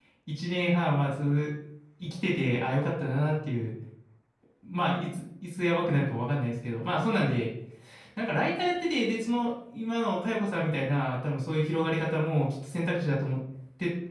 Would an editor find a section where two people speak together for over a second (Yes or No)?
No